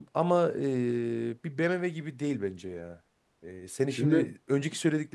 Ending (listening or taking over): listening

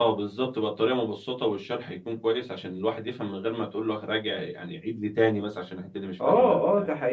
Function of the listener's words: taking over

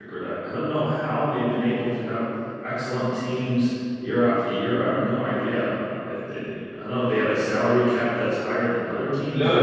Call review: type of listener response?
taking over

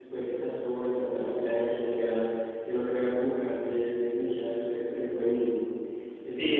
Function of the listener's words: taking over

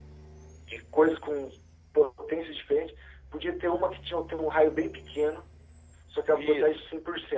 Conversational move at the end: listening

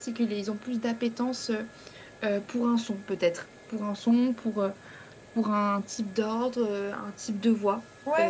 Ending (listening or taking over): taking over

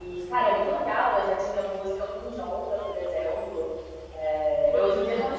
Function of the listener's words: listening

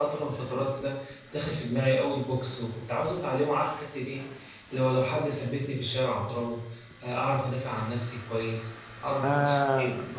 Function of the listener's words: listening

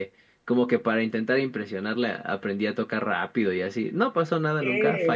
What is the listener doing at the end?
taking over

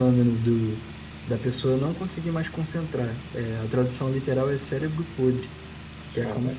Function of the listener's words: listening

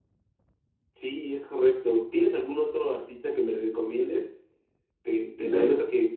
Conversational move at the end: listening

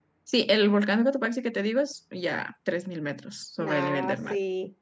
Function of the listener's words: taking over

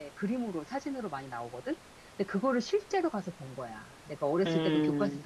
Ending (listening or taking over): listening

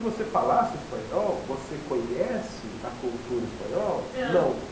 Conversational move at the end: listening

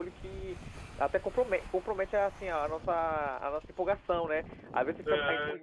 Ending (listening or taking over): listening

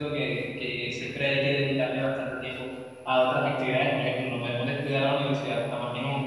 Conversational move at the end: taking over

